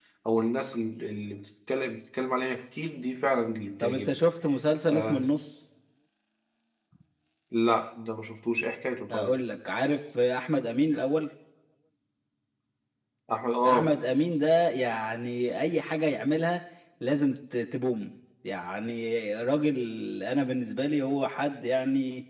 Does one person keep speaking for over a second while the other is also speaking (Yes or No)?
No